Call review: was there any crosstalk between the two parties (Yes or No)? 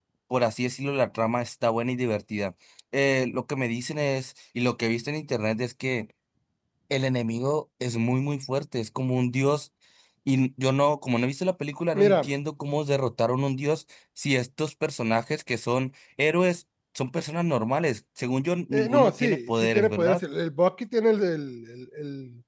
Yes